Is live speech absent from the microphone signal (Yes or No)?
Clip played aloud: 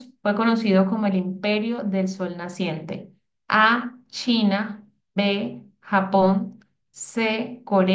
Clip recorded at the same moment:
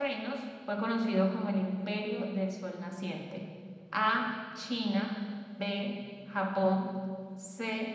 Yes